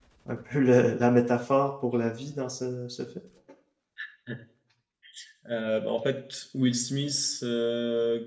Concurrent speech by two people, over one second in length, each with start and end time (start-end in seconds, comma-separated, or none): none